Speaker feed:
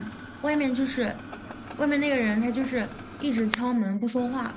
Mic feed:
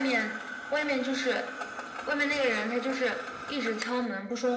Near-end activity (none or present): none